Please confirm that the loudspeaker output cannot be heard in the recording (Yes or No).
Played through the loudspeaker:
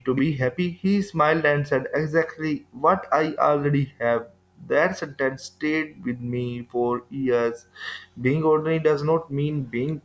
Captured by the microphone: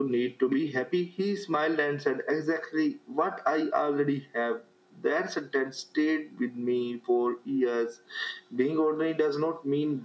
No